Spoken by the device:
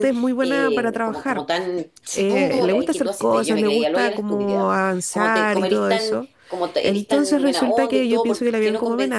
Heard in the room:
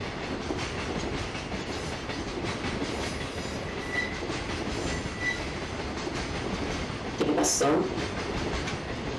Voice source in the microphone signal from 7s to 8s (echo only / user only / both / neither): user only